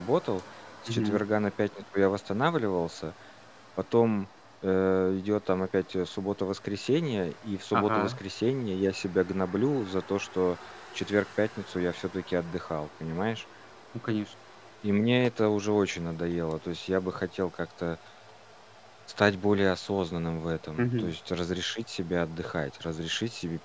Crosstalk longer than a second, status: none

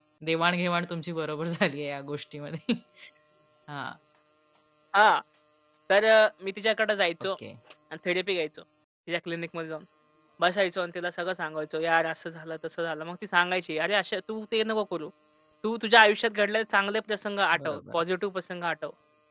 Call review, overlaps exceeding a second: none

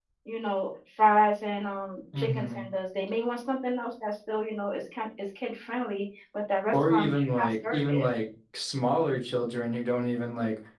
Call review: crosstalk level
present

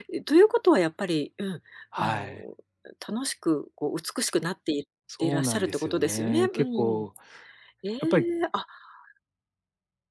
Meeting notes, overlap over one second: present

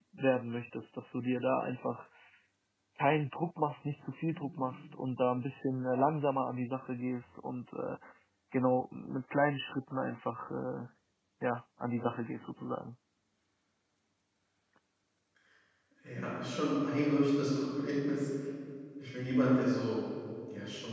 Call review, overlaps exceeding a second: none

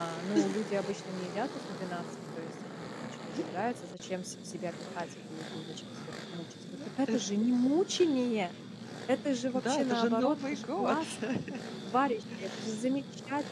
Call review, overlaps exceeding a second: present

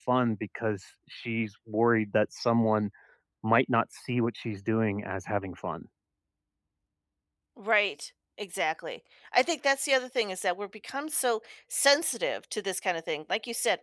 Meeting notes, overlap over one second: none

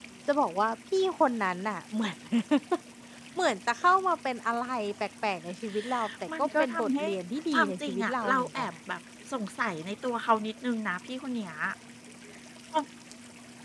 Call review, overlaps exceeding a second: present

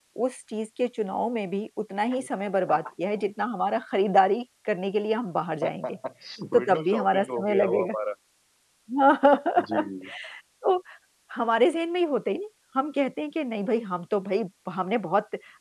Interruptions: present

